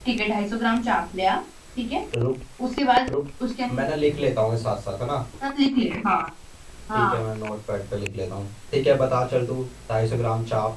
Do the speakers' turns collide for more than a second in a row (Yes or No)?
No